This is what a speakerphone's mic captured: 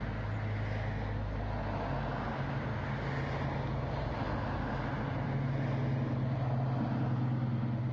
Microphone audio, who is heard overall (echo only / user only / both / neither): neither